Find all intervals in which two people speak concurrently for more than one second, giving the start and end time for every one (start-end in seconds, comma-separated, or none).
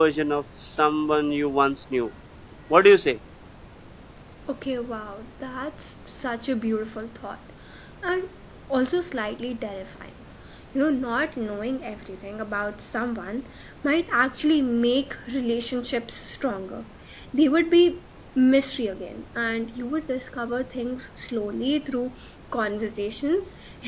none